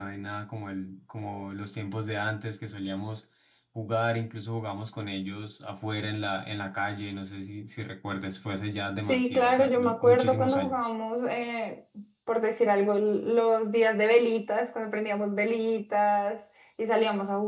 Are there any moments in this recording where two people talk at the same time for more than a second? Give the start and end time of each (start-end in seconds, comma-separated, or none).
9.1-10.9